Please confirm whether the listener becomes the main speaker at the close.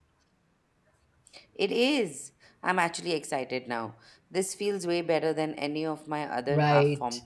Yes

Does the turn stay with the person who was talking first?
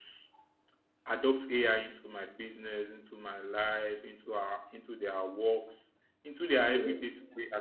Yes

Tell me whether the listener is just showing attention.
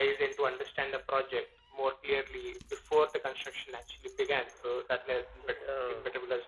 Yes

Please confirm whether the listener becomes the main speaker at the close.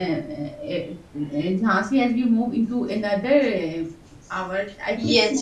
Yes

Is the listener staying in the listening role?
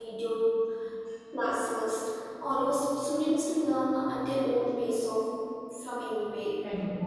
Yes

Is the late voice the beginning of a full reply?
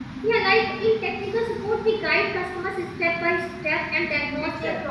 No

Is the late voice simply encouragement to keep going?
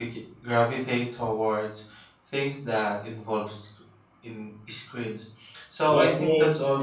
Yes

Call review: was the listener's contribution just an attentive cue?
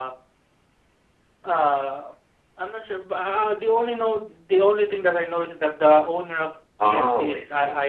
No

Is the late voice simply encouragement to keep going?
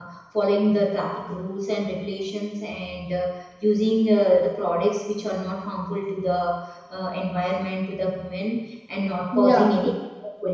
Yes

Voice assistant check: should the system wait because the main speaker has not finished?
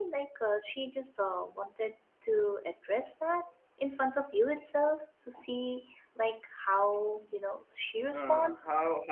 No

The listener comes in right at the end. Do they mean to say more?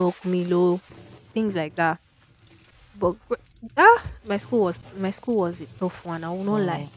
Yes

